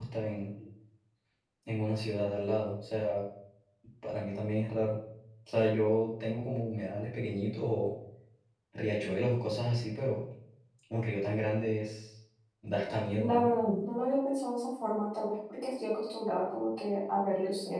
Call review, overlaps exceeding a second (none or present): none